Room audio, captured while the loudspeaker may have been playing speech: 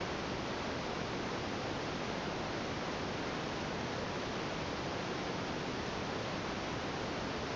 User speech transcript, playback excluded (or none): none